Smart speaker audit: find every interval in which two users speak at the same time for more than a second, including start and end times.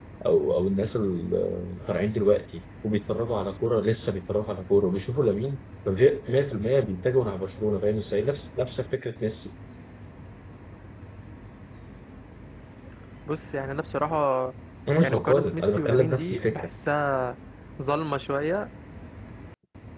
15.0-16.7

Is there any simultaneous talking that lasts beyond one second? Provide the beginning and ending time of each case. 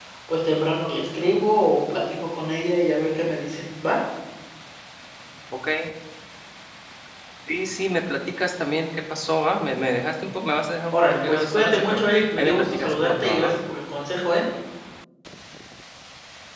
10.9-13.5

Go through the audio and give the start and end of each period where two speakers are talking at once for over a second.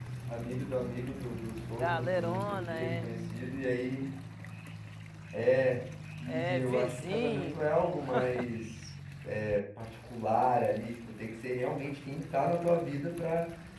1.8-3.1, 6.3-7.6

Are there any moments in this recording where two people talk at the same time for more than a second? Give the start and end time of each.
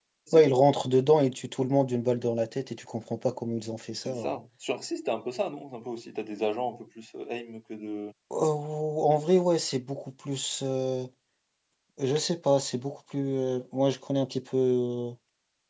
none

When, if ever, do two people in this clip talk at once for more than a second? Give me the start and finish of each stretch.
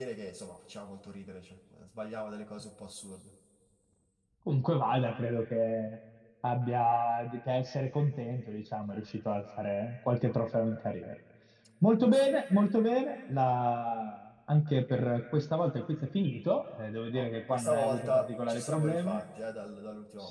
17.1-19.2

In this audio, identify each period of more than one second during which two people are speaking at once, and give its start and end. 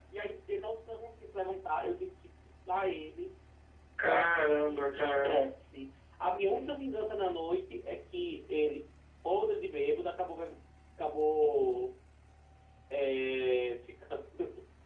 4.0-5.4

